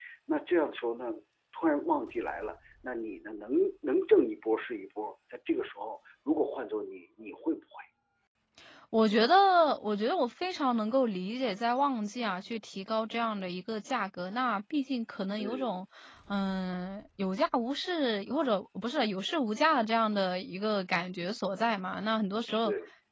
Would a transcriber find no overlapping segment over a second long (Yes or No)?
Yes